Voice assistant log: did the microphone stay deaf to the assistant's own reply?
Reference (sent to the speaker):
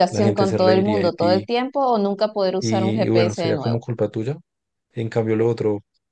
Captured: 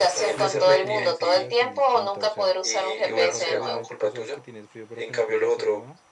No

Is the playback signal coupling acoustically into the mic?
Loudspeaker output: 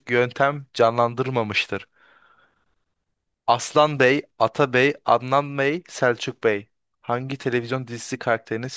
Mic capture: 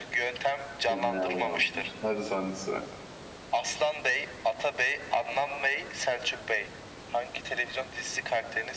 Yes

